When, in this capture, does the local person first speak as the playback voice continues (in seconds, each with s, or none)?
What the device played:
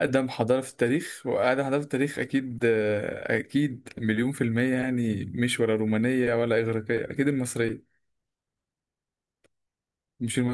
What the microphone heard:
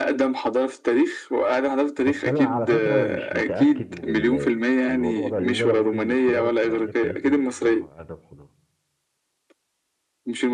2.0 s